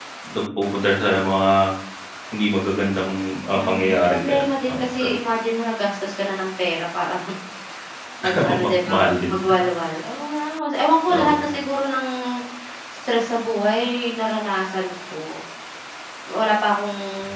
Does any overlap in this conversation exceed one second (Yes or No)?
Yes